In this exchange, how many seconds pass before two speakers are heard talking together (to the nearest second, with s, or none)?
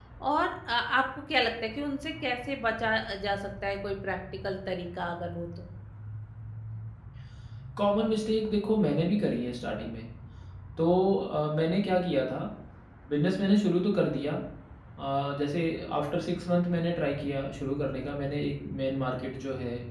none